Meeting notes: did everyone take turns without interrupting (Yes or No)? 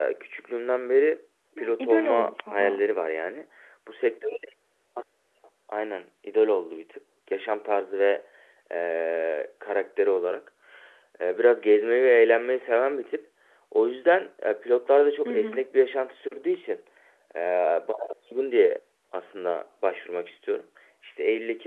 No